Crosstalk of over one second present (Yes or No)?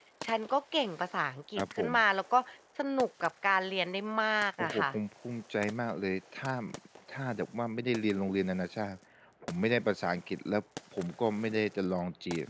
No